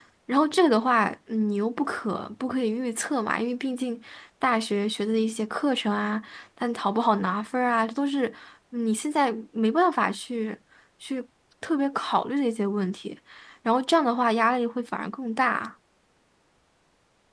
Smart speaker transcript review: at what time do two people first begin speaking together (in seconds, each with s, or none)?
none